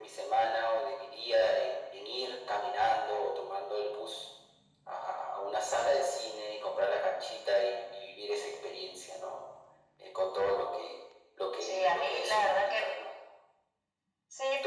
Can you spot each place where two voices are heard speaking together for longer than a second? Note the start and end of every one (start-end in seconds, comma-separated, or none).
11.6-12.9